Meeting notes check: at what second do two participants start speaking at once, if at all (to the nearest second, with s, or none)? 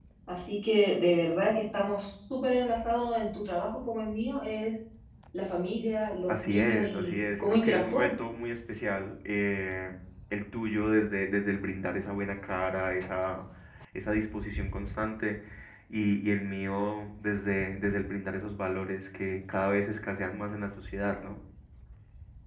6 s